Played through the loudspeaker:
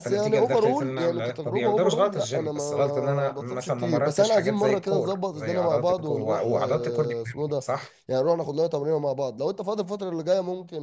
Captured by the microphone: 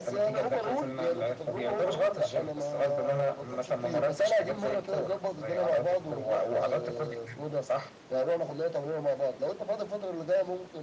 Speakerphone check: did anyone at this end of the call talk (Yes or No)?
No